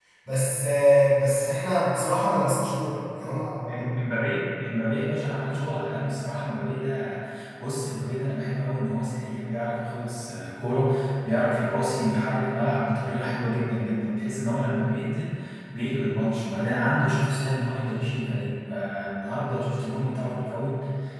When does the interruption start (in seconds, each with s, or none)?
none